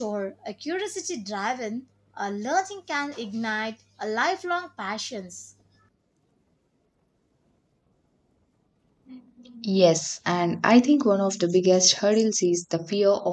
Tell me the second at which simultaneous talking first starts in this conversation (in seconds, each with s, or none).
none